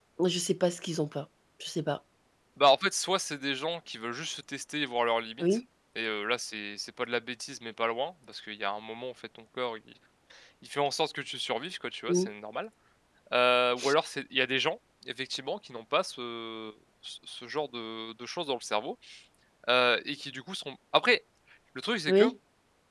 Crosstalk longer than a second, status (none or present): none